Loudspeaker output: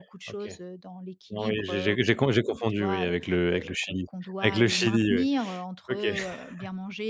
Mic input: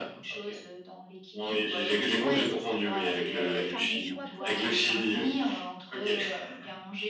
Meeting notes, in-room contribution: present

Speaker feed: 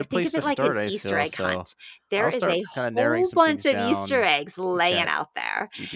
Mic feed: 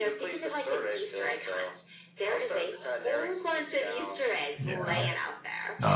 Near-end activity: present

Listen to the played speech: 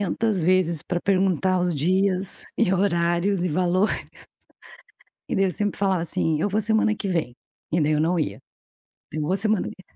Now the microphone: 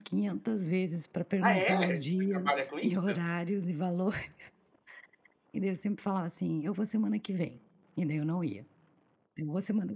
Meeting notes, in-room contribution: present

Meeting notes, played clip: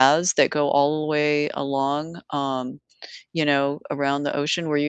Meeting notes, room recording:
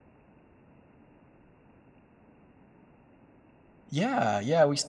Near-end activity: present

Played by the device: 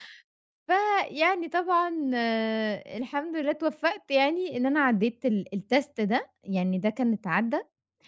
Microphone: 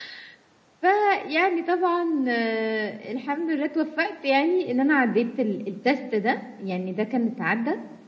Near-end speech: none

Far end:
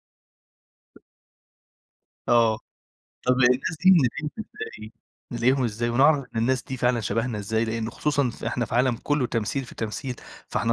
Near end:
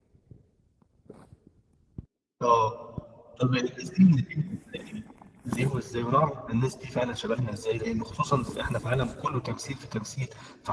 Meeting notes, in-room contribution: none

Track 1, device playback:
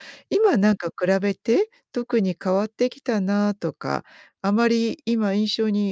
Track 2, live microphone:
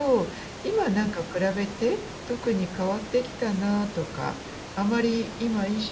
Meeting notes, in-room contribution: none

